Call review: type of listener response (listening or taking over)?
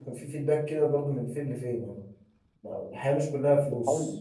taking over